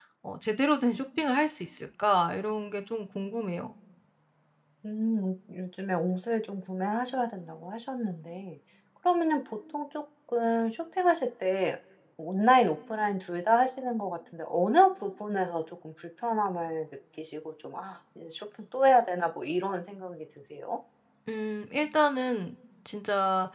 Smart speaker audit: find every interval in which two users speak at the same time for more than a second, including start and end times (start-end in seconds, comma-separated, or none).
none